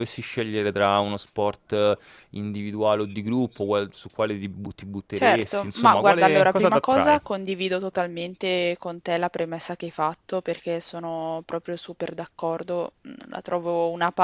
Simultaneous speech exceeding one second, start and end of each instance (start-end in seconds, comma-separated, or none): 5.2-7.2